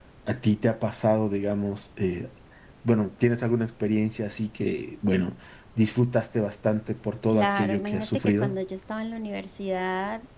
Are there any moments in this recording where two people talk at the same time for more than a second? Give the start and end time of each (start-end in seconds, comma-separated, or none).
7.3-8.6